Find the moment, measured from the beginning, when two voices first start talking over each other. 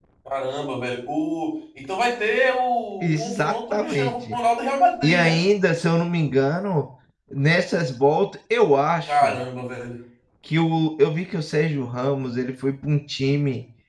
3 s

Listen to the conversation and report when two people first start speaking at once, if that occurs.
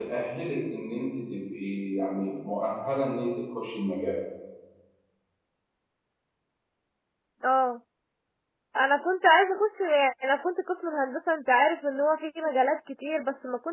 none

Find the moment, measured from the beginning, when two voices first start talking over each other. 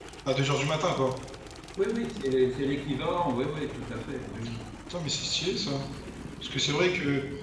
none

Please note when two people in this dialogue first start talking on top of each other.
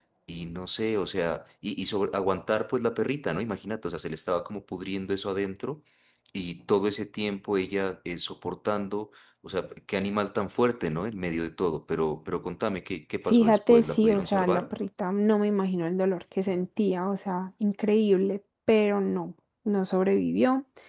13 s

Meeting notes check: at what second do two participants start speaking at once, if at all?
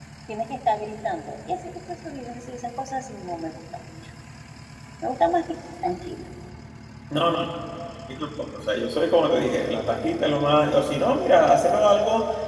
none

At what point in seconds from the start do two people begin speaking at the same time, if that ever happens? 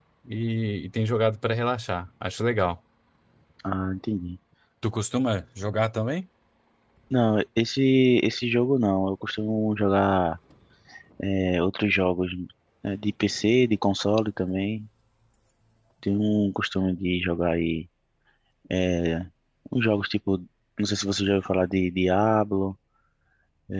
none

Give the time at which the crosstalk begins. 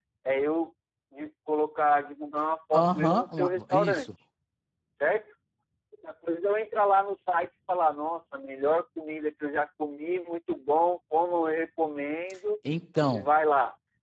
3 s

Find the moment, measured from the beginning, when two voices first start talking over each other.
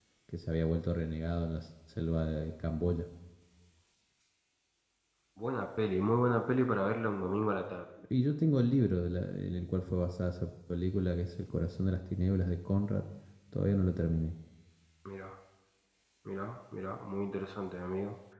none

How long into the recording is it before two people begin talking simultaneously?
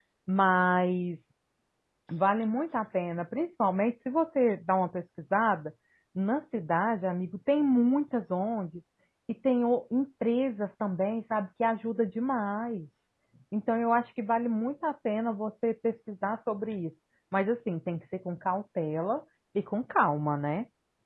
none

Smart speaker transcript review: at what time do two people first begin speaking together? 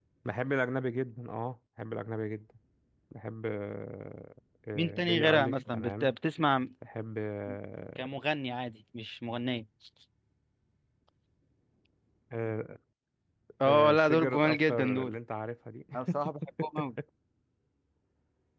5 s

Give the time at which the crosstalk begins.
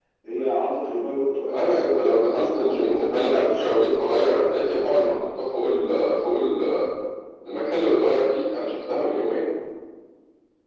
1 s

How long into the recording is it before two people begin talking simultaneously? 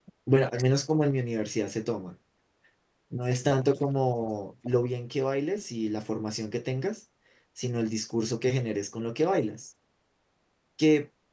none

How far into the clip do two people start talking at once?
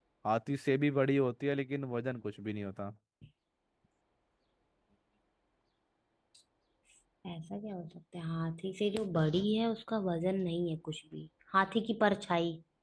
none

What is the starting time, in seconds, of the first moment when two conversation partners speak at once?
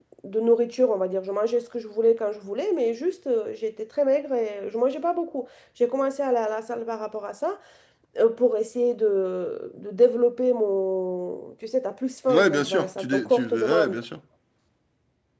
12 s

